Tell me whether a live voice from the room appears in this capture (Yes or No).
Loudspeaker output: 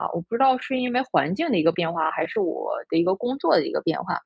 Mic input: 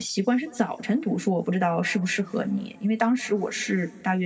Yes